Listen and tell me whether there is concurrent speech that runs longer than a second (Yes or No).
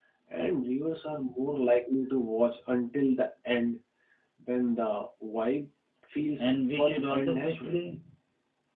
Yes